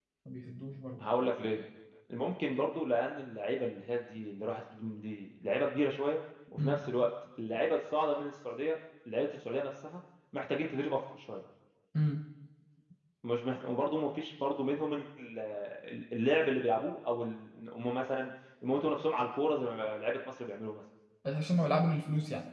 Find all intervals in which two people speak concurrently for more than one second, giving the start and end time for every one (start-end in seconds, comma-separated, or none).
none